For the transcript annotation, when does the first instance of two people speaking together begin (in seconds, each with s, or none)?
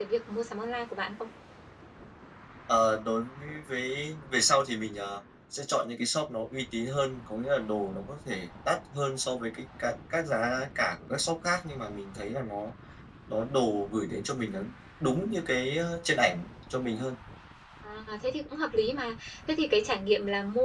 none